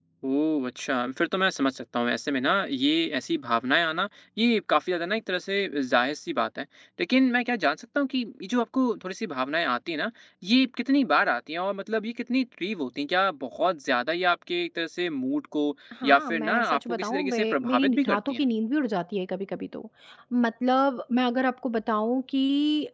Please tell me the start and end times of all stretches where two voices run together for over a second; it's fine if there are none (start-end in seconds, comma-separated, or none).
16.1-18.4